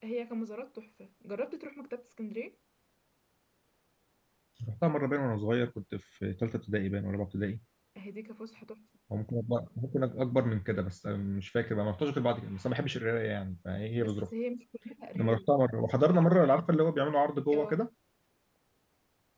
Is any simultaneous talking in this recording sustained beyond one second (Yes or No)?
No